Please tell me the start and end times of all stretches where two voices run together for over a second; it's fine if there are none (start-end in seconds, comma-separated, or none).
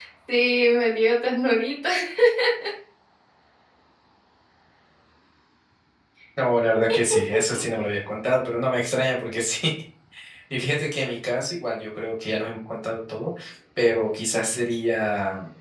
none